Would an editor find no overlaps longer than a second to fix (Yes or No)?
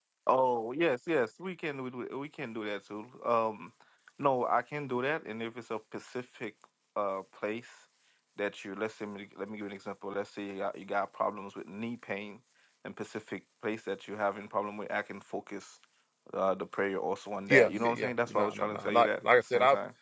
No